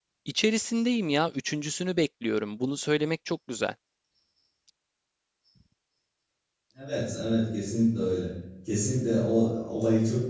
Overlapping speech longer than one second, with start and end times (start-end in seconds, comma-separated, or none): none